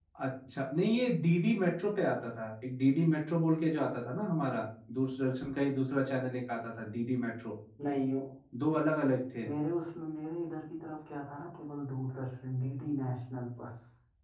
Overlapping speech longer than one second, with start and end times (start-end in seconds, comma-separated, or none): none